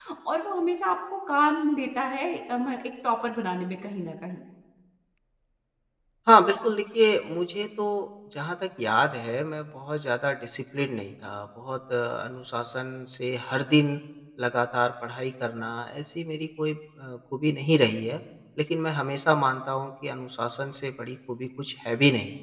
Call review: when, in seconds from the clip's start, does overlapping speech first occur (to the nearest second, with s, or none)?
none